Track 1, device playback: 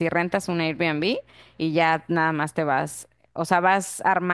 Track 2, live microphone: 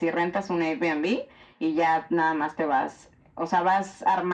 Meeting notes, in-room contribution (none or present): none